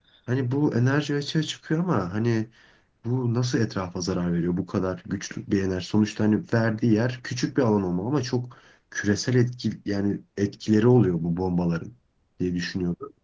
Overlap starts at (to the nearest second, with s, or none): none